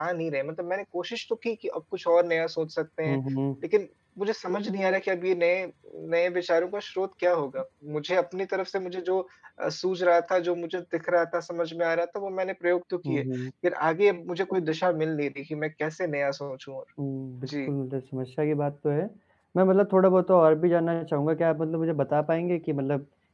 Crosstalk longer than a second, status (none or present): none